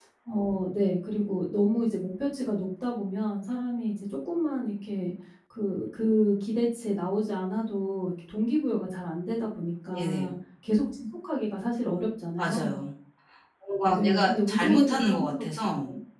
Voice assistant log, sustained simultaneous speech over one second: present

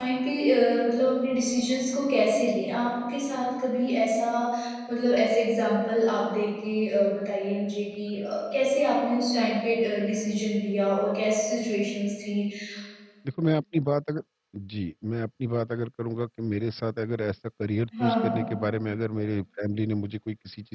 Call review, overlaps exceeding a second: none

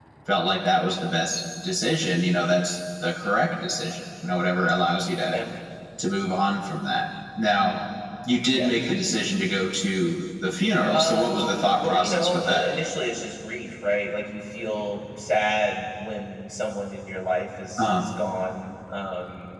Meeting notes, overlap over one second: present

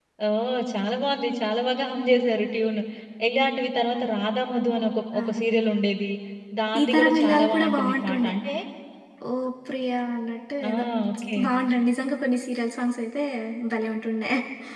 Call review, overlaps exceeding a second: present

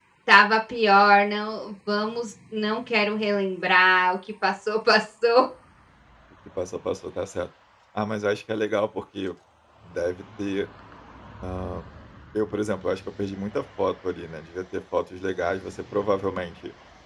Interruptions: none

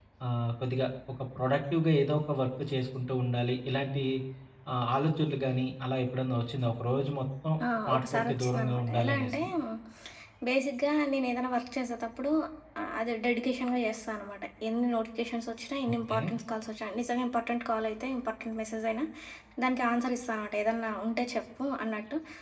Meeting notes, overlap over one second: present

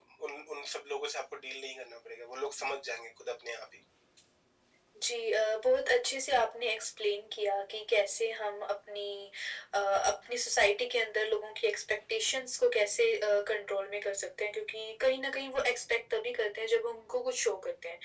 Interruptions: none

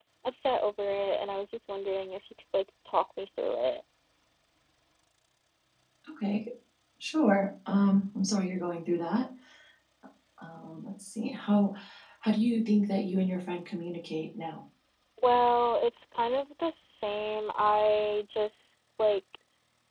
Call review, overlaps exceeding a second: none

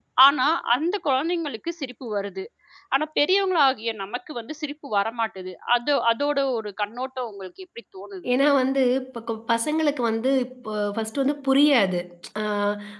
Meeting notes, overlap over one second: none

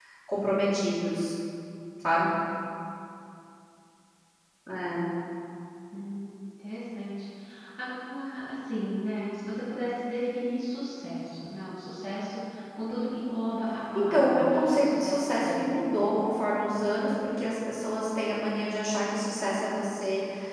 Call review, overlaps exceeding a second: present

